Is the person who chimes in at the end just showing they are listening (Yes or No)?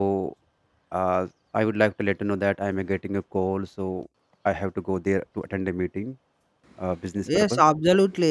No